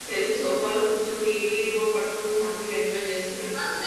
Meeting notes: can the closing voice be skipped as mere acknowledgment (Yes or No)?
No